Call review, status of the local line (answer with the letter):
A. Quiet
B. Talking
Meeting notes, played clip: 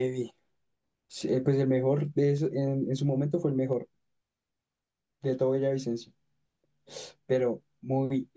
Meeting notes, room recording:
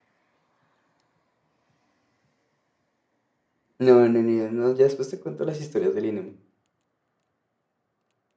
B